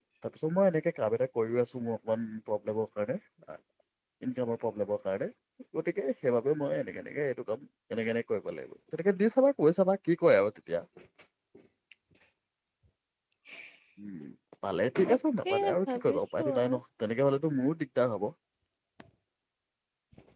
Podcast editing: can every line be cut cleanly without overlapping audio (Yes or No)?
No